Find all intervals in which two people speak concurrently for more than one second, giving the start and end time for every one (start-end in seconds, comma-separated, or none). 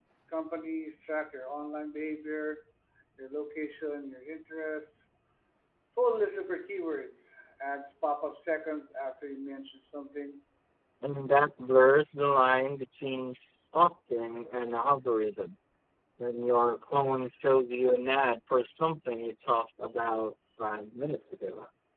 none